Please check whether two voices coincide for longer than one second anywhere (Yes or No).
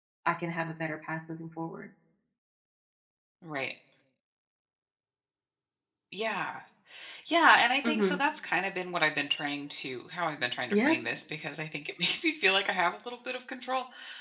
No